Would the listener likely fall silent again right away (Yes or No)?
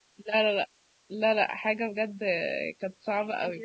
No